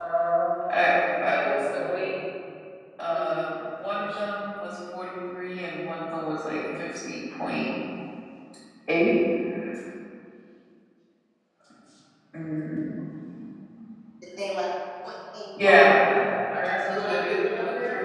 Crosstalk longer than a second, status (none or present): present